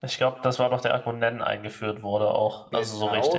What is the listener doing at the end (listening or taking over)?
taking over